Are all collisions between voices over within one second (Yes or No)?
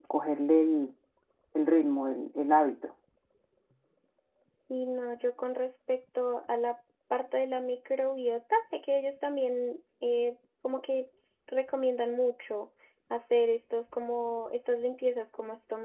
Yes